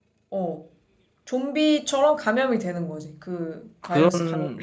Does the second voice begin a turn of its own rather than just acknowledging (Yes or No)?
Yes